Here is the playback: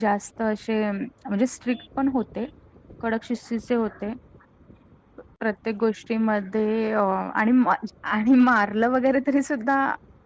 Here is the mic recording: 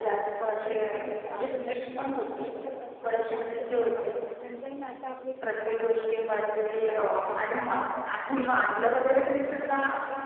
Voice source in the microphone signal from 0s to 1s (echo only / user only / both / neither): both